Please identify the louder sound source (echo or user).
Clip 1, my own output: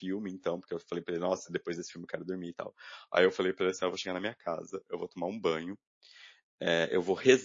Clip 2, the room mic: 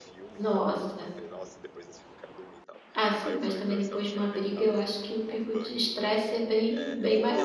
user